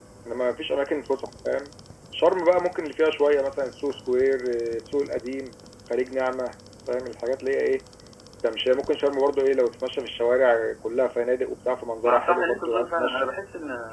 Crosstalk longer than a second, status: present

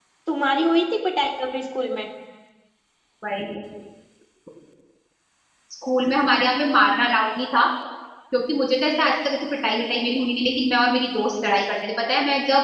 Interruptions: none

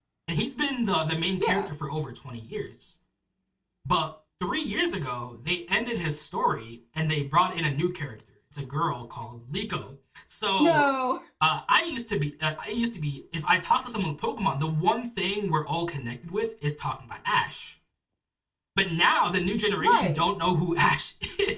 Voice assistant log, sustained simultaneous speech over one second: none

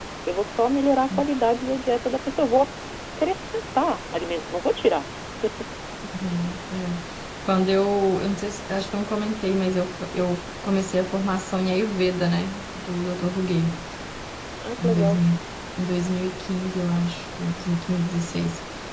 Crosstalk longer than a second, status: none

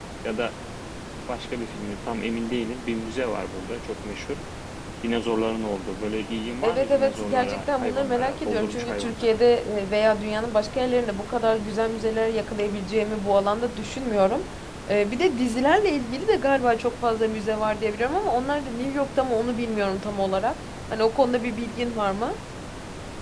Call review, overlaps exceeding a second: present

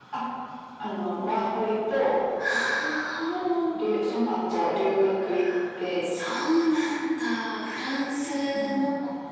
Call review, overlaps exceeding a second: none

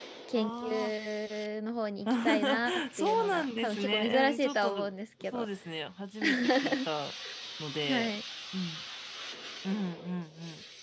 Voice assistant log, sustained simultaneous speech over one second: present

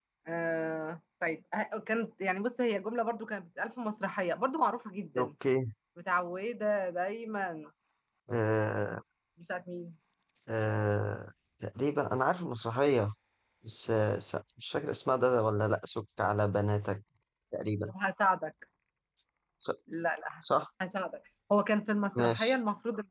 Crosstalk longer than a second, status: none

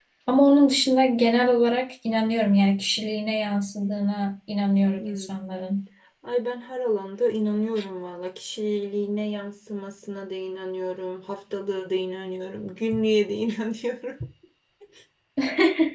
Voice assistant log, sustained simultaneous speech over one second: none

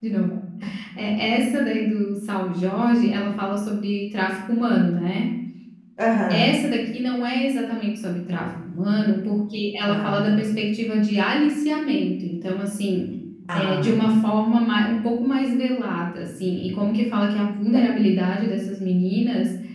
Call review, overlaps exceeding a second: none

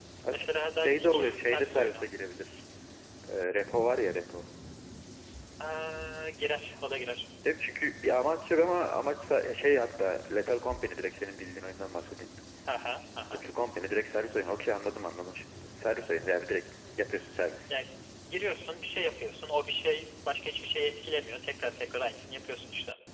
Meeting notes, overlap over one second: present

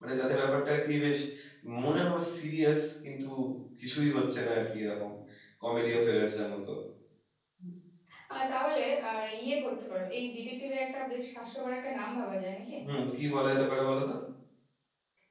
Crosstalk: none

